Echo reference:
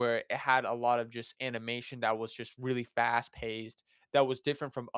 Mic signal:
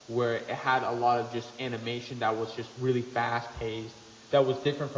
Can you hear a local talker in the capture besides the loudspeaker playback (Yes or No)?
No